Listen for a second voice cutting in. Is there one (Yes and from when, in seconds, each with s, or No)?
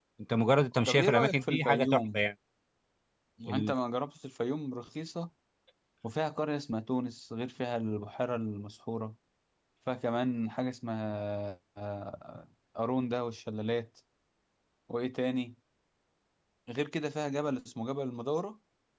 Yes, from 0.8 s